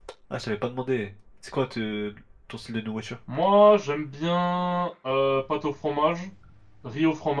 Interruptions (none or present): none